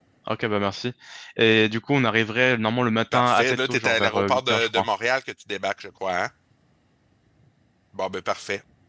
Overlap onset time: 3.1 s

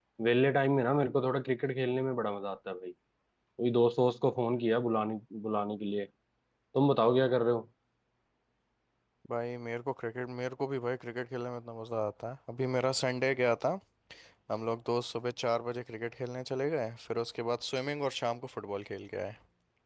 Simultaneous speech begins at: none

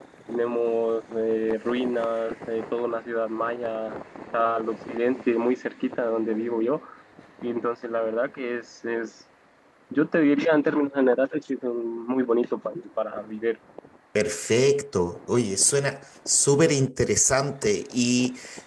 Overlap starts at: none

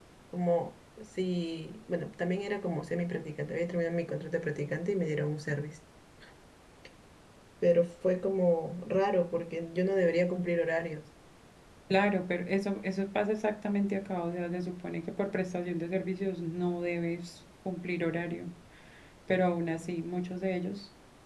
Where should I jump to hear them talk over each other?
none

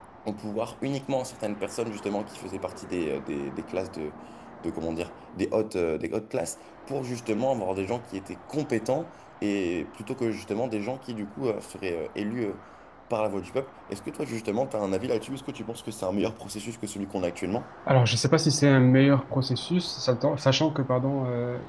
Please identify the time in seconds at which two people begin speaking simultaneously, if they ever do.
none

